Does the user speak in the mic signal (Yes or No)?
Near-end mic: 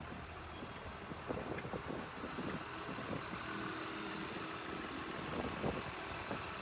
No